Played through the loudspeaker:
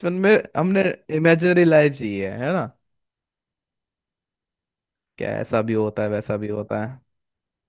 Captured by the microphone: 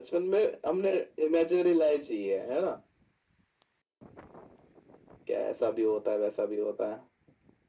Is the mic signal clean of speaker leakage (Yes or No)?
No